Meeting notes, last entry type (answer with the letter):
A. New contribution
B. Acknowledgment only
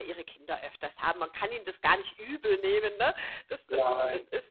B